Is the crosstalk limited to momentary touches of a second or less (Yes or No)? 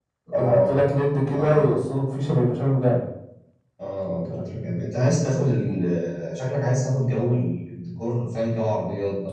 Yes